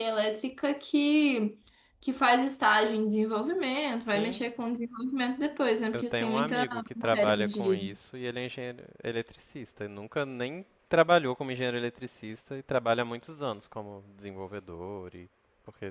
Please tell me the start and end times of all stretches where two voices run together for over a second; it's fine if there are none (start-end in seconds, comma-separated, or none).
5.9-8.0